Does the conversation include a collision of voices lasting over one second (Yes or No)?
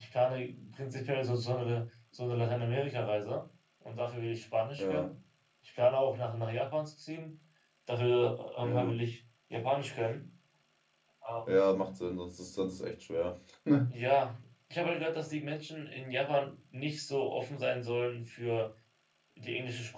No